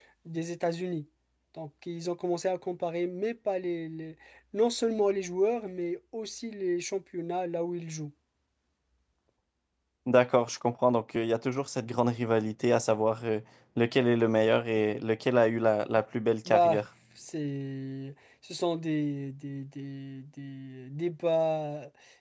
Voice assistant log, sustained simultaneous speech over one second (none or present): none